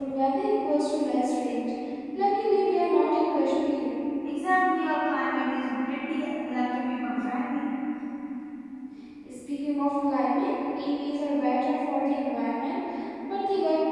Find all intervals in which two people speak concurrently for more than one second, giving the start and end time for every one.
none

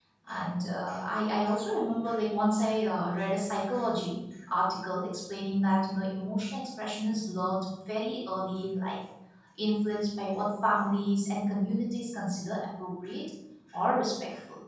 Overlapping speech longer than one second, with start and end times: none

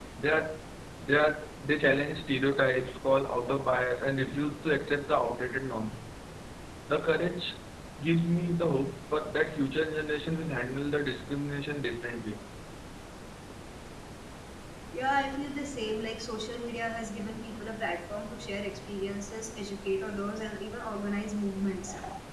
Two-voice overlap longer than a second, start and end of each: none

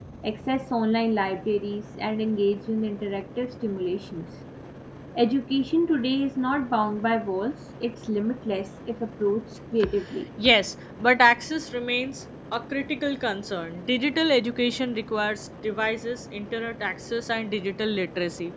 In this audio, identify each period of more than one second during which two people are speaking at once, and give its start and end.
none

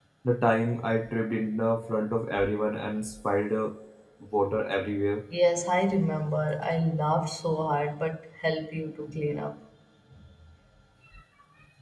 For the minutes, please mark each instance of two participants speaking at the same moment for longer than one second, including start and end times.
none

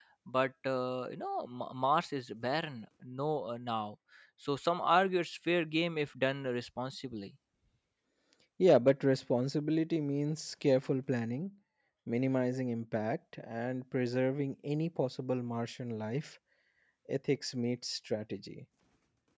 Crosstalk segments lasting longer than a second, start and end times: none

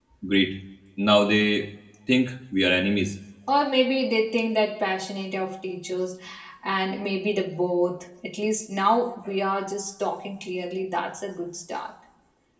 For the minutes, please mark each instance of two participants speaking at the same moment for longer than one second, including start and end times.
none

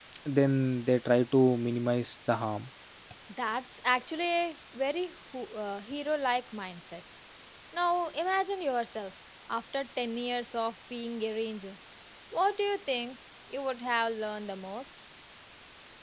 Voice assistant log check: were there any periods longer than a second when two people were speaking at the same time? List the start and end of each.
none

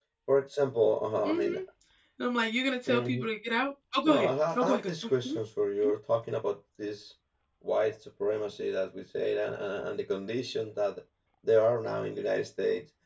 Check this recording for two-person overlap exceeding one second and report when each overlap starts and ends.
4.0-5.3

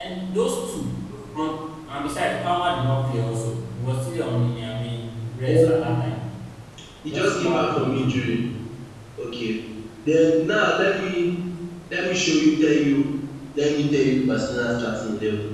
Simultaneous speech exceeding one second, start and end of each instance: 7.0-8.3

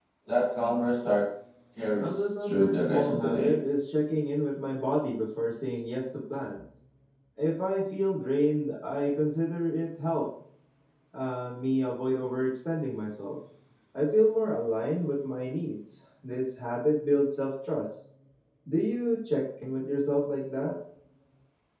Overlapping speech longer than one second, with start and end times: 2.0-3.6

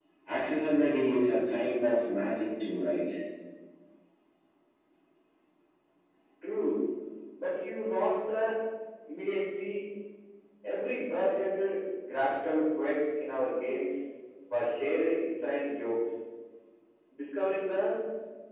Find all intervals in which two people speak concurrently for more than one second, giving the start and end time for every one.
none

